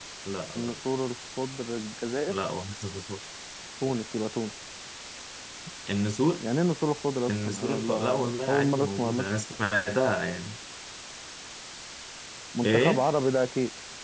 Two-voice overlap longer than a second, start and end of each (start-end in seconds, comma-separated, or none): 7.3-9.3